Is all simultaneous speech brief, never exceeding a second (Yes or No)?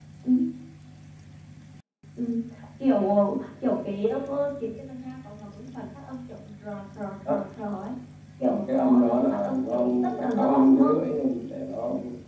No